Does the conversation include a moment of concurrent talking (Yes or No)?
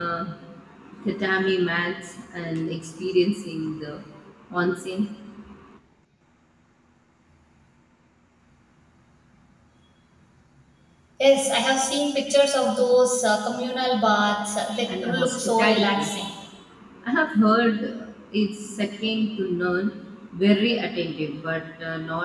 Yes